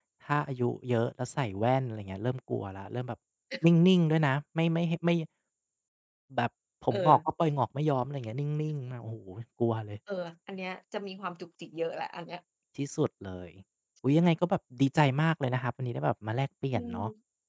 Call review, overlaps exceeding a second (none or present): none